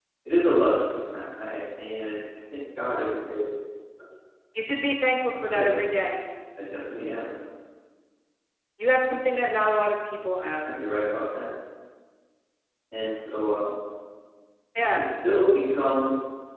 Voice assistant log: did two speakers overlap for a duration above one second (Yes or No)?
No